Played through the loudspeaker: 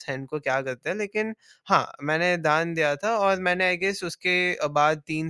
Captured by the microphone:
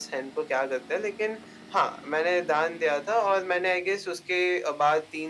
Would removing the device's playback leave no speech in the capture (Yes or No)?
Yes